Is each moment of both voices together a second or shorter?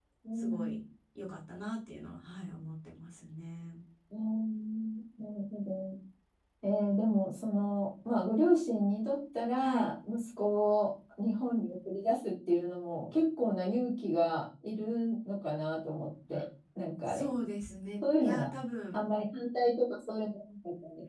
Yes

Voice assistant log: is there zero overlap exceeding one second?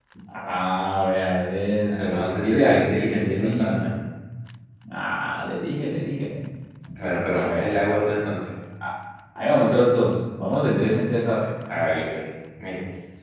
No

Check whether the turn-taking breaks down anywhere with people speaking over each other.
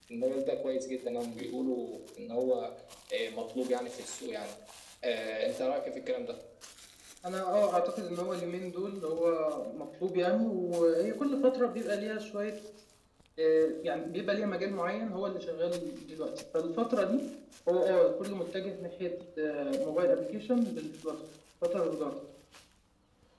No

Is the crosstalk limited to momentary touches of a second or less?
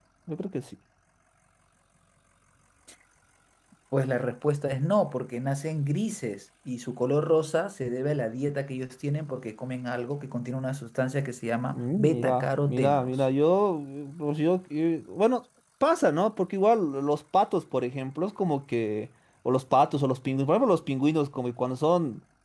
No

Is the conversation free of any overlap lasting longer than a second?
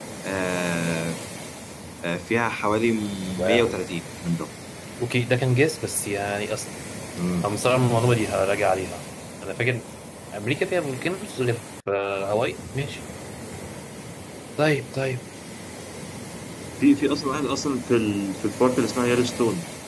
Yes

